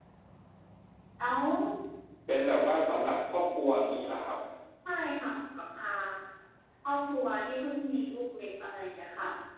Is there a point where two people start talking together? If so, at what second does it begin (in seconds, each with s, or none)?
none